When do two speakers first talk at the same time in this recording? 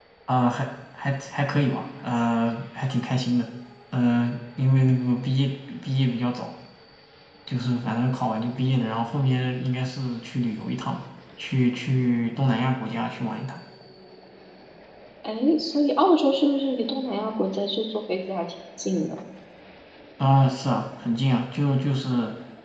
none

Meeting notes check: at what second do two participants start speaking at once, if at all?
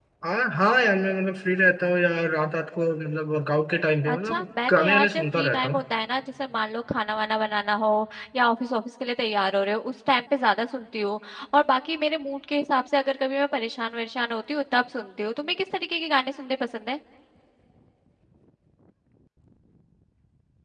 4.0 s

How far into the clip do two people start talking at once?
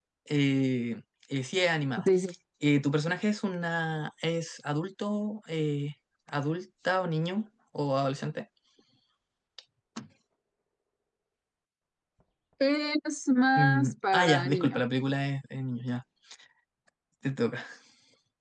13.6 s

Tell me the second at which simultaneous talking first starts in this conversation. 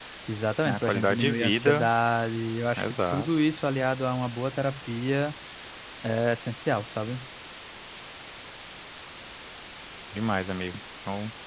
0.6 s

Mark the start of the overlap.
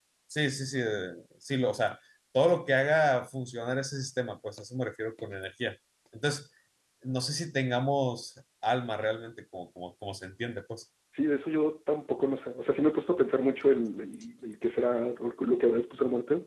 none

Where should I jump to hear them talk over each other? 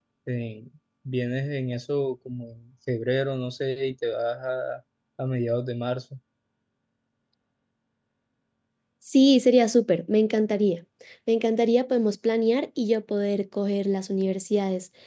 none

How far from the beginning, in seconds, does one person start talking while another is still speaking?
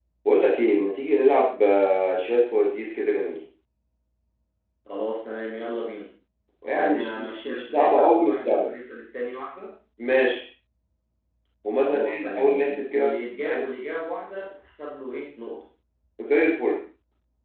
6.8 s

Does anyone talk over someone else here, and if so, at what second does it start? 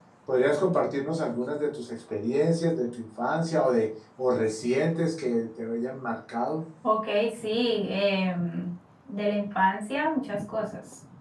none

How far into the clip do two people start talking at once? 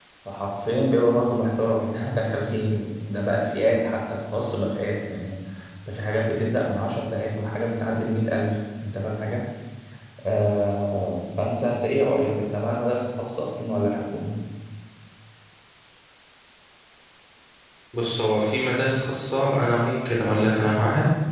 none

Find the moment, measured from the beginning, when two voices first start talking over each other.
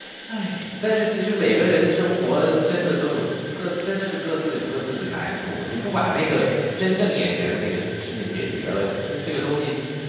none

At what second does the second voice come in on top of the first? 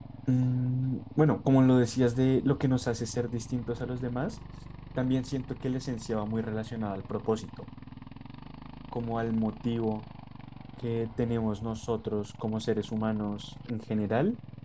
none

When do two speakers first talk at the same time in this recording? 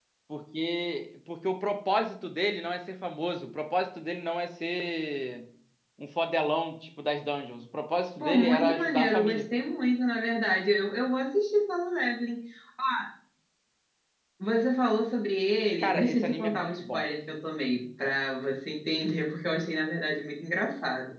8.2 s

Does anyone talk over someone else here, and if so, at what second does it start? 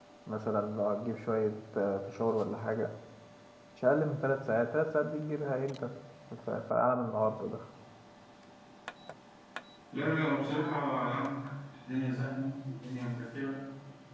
none

